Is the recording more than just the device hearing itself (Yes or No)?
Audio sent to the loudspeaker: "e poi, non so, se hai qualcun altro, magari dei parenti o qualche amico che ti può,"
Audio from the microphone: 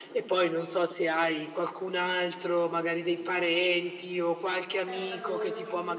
Yes